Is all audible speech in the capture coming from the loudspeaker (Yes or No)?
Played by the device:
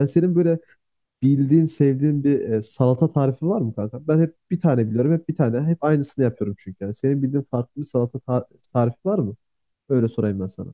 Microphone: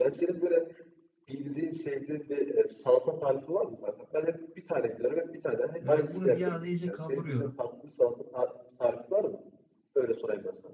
No